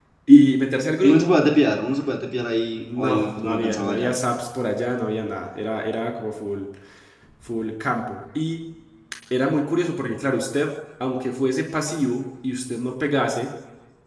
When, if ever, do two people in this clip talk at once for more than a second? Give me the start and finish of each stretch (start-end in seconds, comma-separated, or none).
2.8-4.1